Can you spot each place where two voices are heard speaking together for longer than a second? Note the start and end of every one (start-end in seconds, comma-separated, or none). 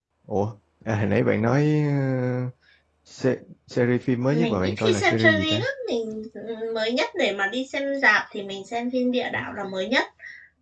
4.3-5.6